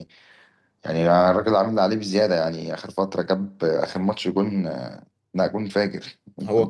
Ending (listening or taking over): taking over